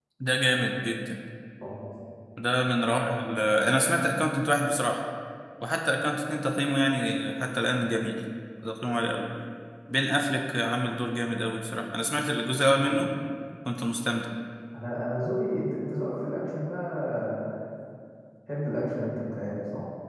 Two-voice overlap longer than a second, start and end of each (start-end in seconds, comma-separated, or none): none